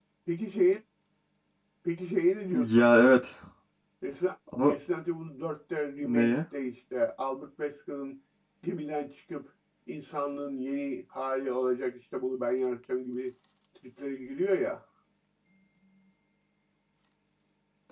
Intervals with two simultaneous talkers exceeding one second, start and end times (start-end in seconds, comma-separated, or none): none